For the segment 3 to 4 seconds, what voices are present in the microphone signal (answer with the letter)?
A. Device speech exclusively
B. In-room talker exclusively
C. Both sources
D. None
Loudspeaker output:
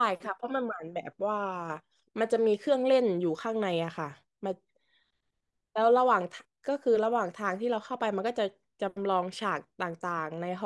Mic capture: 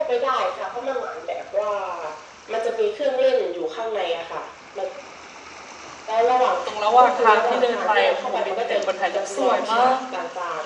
A